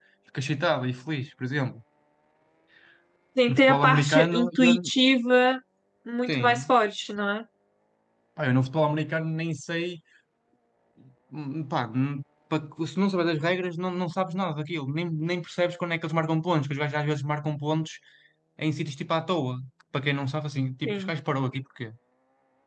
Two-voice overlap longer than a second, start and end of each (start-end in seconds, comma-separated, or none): 3.5-4.7